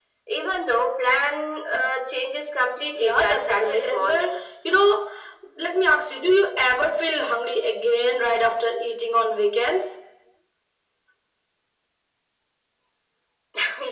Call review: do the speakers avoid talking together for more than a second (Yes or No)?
No